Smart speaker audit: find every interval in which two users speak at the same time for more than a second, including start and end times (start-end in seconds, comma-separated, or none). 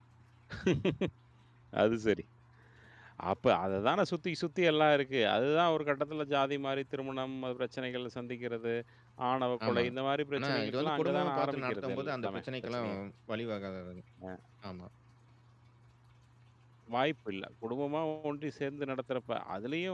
10.4-12.9